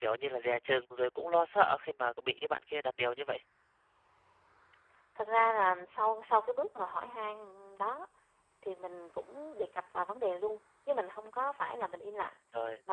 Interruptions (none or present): none